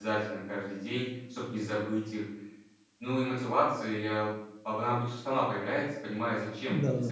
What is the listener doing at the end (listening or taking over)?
listening